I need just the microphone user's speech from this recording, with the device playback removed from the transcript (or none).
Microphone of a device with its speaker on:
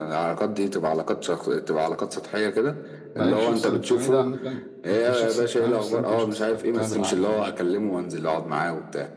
ما هي الشخص الاجتماعي ده عامة انت شخص اجتماعي بس انت شخص اجتماعي بالعقل يعني